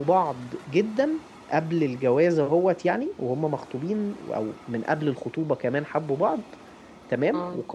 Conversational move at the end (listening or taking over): listening